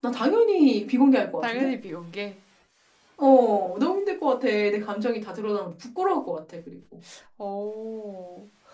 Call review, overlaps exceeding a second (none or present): none